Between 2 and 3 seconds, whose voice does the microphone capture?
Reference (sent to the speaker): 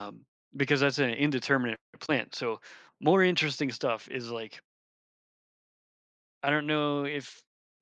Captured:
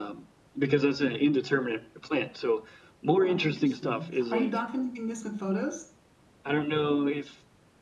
echo only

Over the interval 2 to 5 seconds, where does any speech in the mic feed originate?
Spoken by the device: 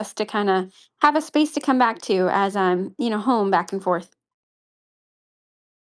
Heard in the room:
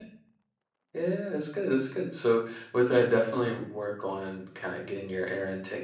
user only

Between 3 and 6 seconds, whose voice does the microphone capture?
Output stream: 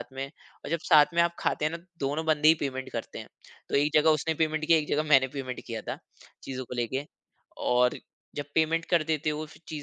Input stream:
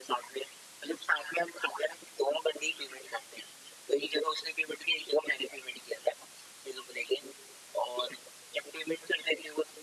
echo only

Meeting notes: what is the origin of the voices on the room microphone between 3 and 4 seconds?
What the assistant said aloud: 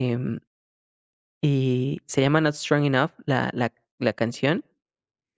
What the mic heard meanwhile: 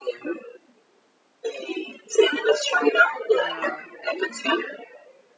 both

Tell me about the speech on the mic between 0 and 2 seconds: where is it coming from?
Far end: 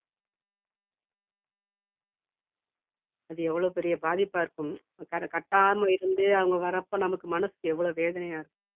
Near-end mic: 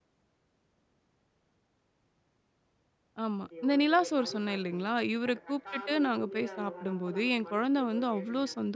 neither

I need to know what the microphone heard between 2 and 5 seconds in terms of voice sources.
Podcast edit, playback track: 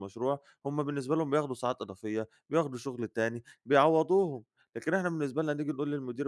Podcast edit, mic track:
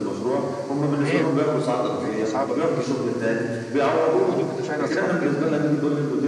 both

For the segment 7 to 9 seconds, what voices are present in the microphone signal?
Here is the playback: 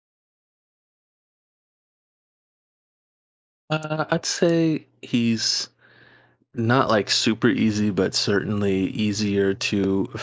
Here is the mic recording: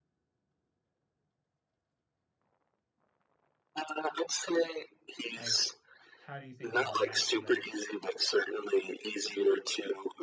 both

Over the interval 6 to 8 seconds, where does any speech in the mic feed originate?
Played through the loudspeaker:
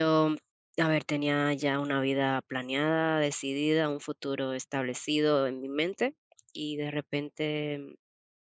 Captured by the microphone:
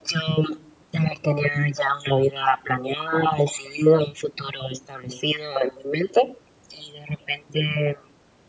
echo only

